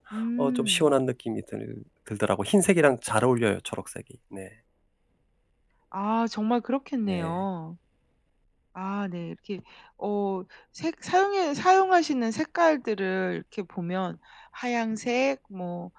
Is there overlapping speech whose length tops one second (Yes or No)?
No